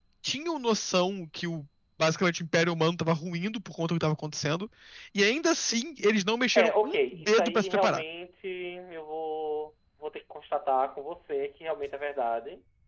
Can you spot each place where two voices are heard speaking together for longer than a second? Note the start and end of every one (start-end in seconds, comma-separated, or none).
6.6-8.0